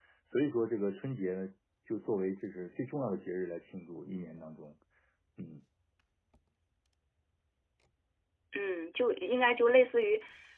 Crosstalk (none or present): none